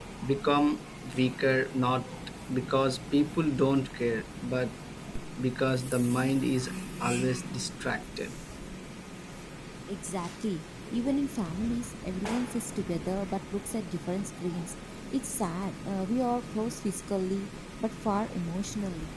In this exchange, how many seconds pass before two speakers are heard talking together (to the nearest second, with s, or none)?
none